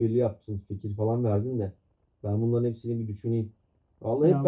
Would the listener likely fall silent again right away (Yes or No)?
Yes